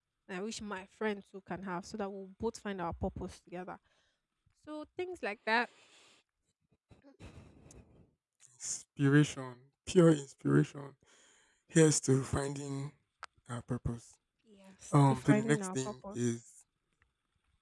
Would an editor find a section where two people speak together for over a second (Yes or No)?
Yes